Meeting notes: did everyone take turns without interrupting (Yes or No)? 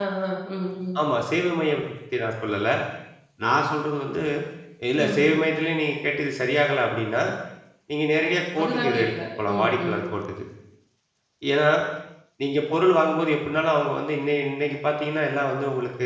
No